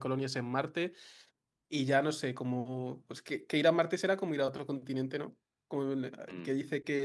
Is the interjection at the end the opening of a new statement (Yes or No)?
No